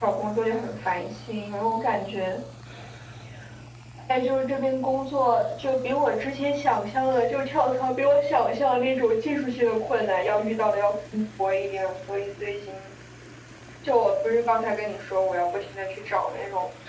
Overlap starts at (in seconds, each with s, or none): none